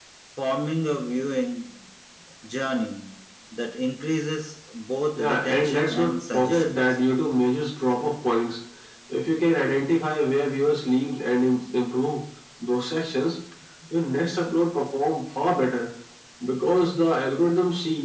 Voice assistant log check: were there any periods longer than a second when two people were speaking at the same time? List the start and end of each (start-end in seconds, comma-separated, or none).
5.2-6.8